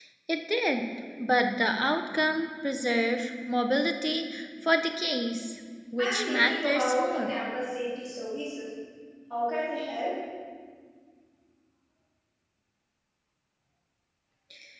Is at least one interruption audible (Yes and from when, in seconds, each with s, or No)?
Yes, from 6.0 s